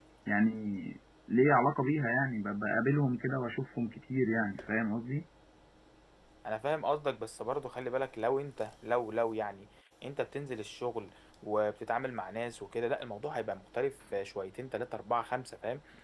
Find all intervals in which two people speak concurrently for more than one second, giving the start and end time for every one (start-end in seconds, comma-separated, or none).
none